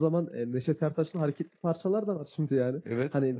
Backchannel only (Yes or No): Yes